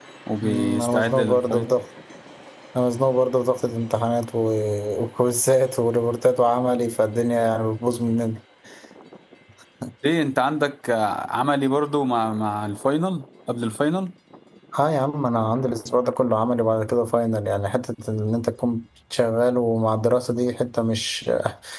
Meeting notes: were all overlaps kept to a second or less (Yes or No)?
No